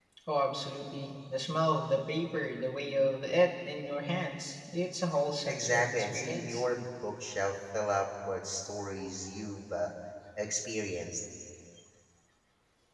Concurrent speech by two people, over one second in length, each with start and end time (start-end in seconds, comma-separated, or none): 5.5-6.7